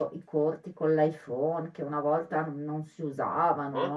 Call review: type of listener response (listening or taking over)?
taking over